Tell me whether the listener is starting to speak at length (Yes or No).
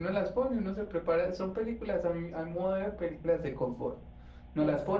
No